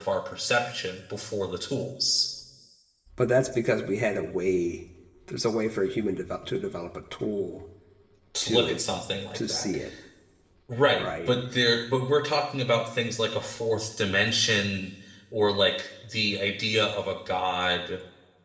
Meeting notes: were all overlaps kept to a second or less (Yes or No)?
Yes